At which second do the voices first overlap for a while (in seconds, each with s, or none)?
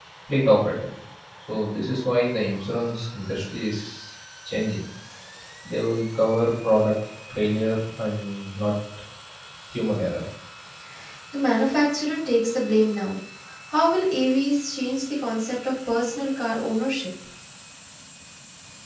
none